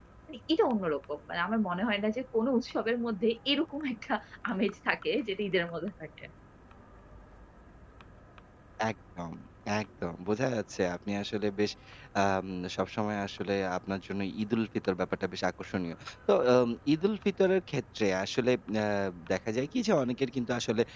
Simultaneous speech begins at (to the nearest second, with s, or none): none